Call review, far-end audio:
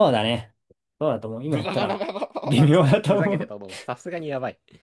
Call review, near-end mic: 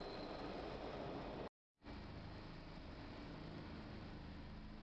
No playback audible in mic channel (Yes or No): Yes